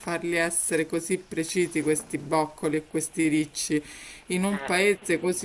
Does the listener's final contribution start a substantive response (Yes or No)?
No